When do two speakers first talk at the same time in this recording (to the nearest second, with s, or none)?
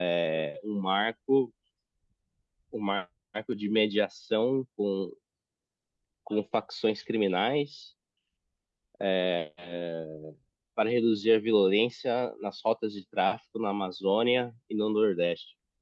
none